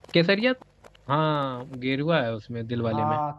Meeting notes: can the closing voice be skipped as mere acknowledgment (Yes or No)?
No